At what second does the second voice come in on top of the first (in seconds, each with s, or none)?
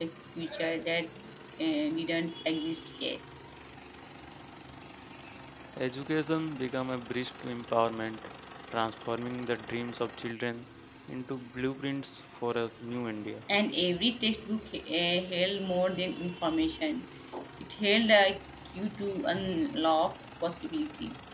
none